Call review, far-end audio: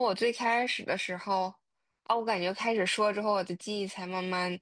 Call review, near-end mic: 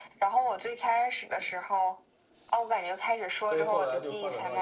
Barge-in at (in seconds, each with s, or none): 3.4 s